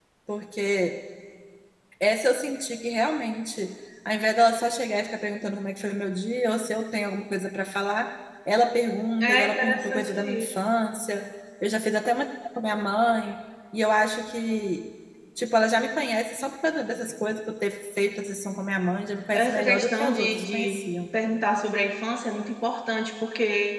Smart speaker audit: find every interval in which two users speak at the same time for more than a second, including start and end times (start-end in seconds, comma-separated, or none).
9.2-10.5, 19.3-20.8